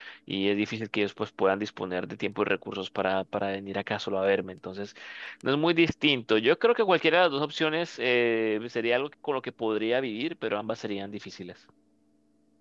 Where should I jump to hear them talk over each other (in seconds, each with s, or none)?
none